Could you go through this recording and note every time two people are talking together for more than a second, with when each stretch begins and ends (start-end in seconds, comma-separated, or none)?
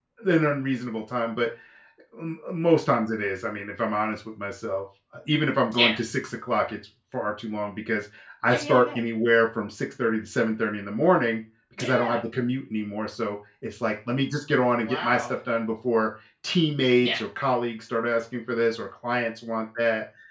none